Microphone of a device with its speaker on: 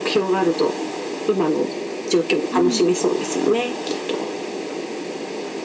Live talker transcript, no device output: うん。

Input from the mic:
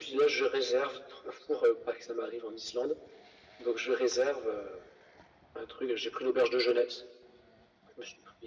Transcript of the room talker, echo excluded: none

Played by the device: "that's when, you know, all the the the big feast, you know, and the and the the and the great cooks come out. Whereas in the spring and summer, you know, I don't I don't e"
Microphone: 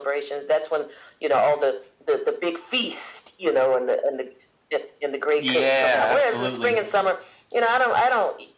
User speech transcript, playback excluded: Yeah, absolutely.

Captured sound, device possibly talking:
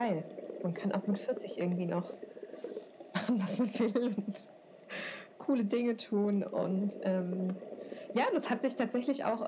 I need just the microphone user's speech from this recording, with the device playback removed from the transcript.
none

